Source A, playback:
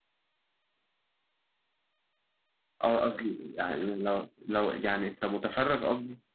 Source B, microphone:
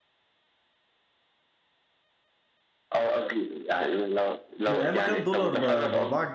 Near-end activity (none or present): present